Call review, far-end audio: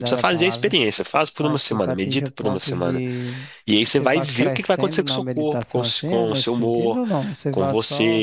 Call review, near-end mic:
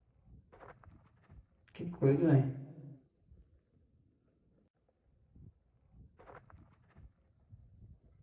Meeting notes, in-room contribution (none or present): present